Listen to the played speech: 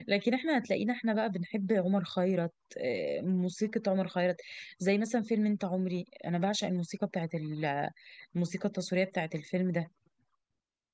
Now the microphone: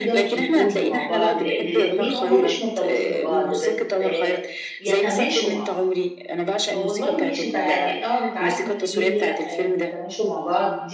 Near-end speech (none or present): present